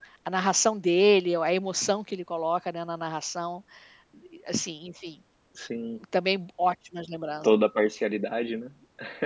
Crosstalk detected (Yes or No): No